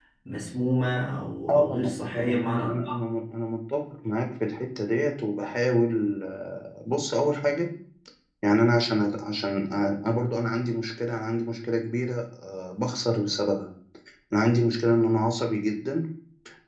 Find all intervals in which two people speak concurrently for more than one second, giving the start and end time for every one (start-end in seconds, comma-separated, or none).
1.5-2.7